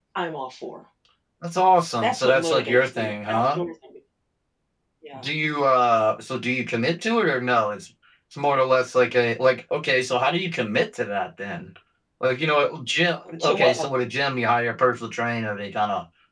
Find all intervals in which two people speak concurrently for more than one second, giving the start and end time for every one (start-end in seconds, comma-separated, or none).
2.0-3.6